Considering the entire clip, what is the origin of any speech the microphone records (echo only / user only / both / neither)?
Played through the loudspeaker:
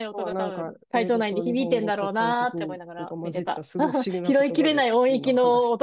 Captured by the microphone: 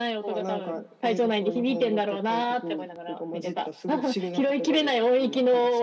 echo only